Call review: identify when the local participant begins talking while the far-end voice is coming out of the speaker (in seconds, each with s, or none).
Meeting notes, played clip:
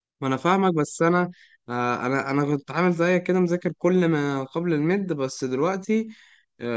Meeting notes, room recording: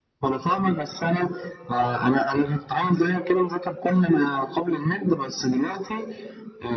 none